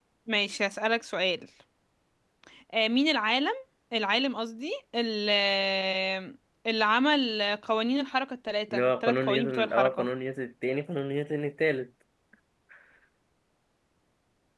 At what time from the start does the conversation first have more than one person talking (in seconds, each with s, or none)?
8.7 s